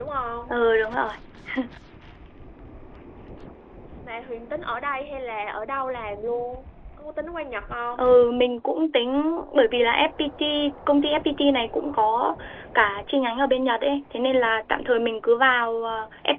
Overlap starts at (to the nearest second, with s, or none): none